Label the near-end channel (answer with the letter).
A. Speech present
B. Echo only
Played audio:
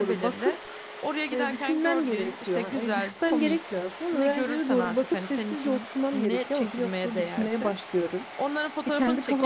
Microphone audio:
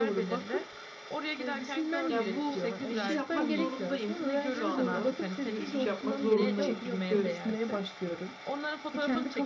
A